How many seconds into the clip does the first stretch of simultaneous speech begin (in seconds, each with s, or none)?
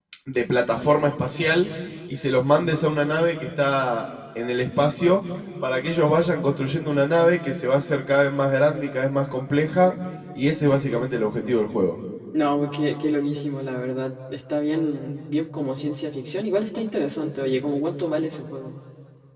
none